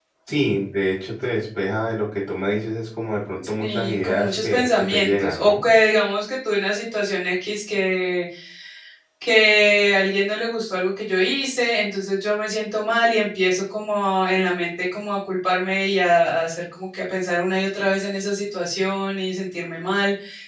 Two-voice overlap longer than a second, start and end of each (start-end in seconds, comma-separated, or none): 3.6-5.6